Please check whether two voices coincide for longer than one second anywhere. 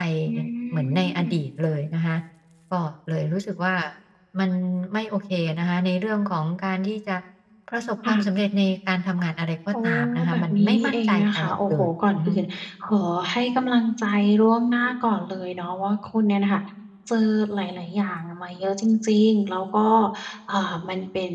Yes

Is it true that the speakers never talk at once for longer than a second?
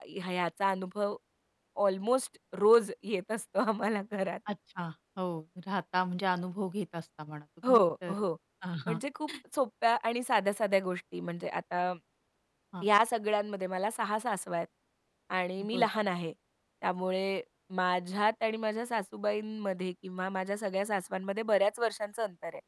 Yes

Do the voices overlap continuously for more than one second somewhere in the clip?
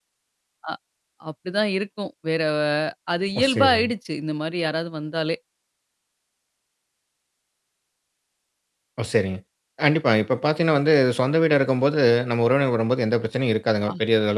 No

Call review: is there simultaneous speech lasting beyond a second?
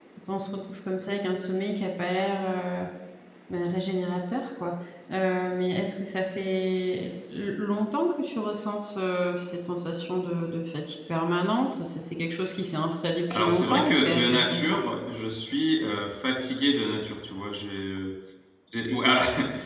Yes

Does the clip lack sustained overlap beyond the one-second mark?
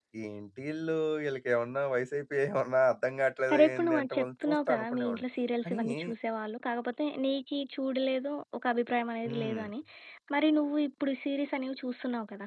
No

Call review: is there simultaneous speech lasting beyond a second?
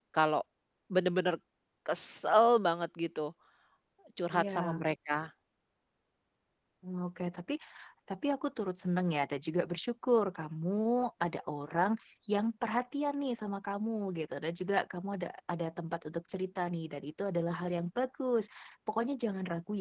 No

